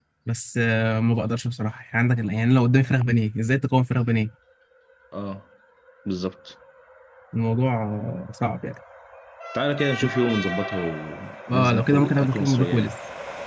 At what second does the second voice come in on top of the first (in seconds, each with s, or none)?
11.5 s